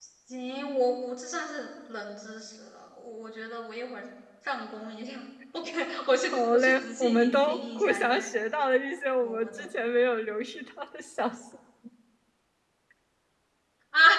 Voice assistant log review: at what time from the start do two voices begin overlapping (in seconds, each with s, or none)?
6.5 s